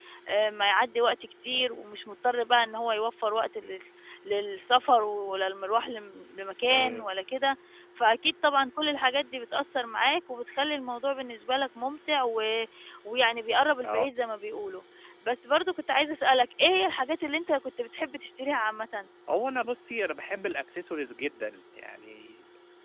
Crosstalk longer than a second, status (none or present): none